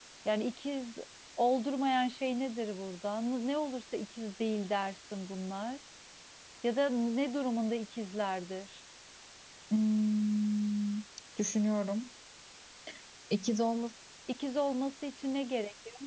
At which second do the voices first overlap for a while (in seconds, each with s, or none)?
none